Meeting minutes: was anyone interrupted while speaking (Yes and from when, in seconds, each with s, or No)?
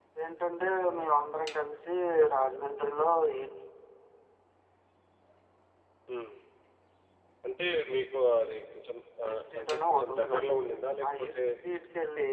Yes, from 9.2 s